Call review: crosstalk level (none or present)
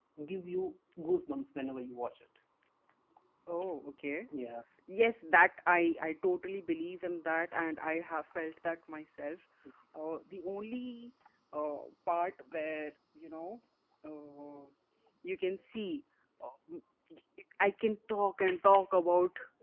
none